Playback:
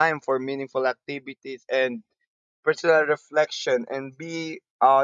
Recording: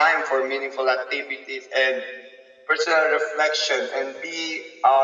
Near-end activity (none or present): none